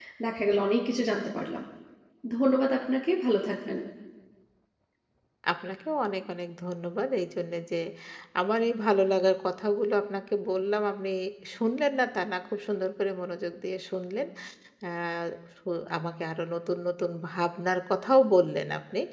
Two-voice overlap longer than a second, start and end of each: none

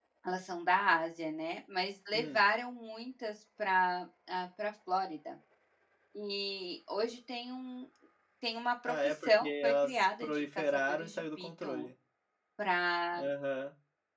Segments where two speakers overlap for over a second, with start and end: 8.8-11.9

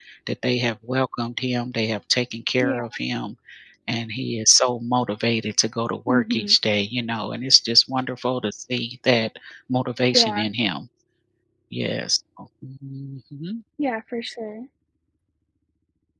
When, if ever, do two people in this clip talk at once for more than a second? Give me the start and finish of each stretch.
none

